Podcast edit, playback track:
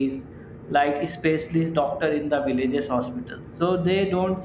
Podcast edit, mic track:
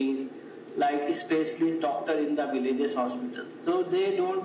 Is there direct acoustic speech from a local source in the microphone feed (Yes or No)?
No